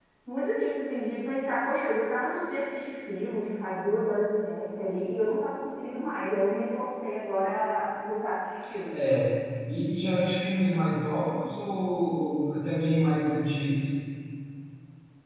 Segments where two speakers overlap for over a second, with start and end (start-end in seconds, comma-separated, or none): none